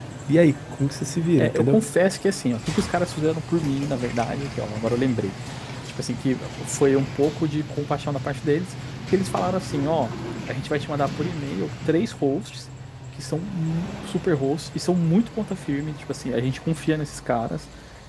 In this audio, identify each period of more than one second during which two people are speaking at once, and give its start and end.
none

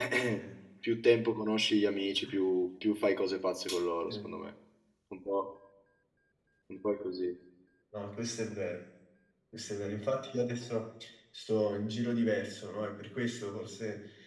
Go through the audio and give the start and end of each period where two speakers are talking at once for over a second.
none

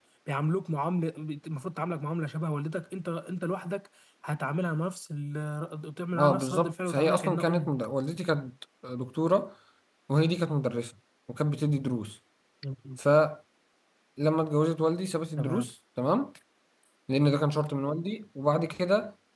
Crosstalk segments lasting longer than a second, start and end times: 6.2-7.7

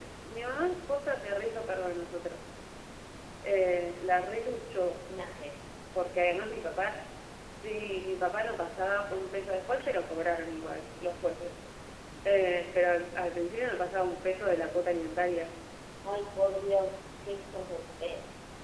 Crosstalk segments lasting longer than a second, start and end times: none

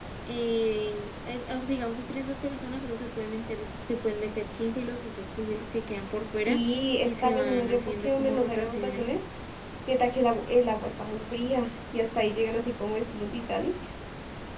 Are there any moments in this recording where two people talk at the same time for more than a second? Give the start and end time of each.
7.0-9.1

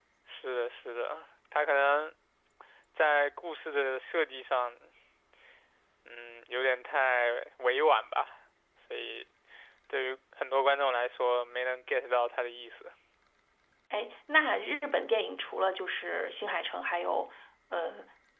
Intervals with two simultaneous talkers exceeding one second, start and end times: none

